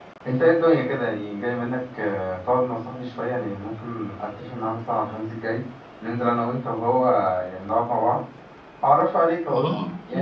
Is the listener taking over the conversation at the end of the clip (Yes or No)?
Yes